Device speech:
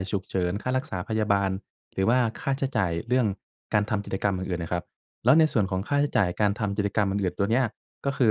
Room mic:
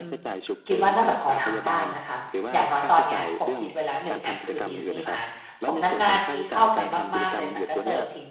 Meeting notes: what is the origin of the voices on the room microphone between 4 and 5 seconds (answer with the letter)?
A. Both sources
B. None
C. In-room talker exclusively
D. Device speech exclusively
A